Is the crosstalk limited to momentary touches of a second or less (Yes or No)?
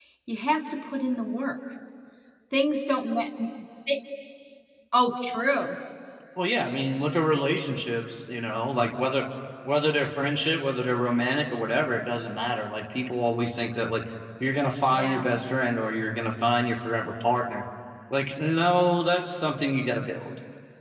Yes